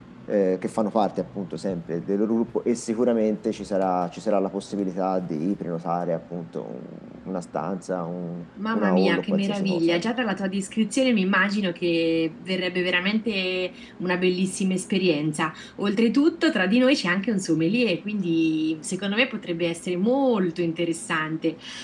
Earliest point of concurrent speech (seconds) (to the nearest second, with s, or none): 9 s